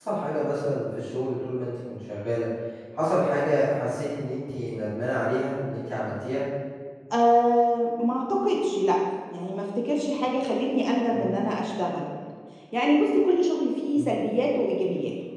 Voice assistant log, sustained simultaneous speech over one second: none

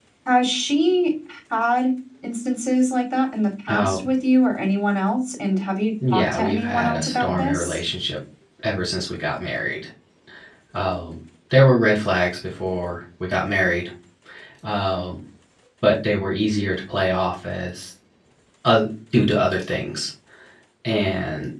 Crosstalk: present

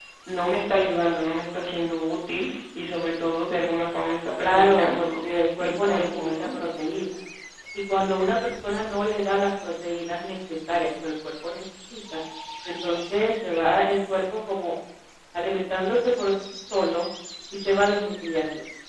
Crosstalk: present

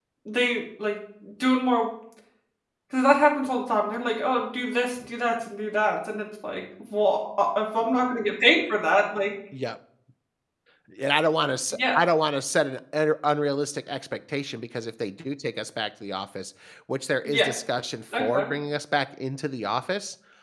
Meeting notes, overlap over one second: none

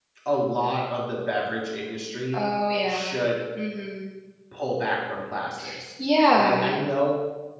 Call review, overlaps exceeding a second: none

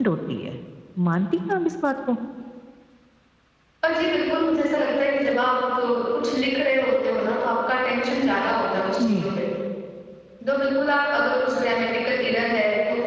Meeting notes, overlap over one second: none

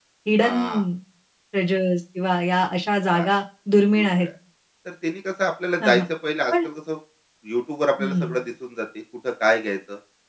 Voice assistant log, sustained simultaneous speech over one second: none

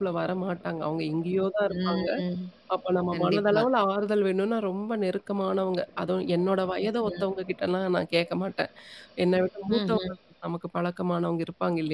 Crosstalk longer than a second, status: none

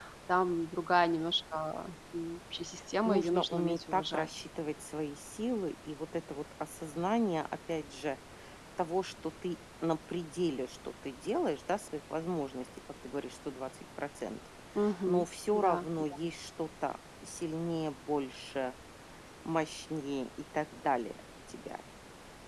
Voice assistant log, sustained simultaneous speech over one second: present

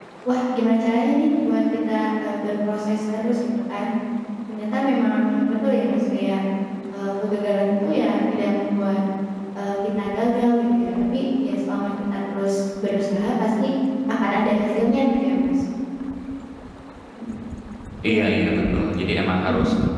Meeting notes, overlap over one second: none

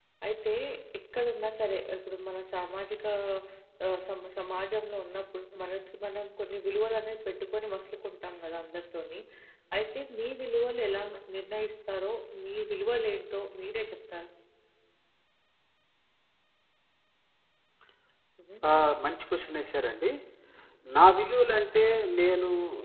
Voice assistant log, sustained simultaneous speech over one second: none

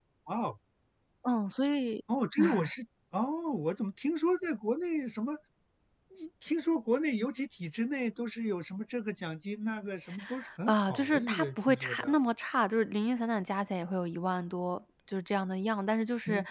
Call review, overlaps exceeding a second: present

